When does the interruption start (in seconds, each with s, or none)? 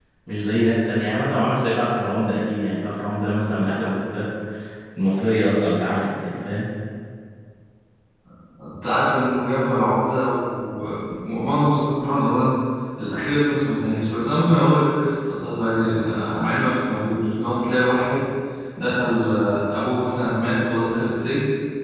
none